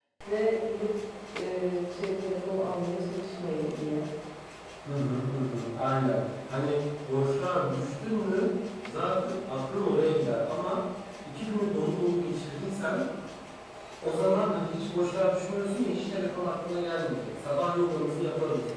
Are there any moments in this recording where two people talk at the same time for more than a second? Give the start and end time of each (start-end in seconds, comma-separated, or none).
none